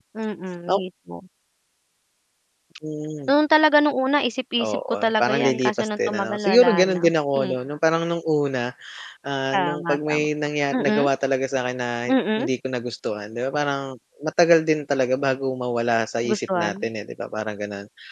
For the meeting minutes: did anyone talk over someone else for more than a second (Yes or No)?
Yes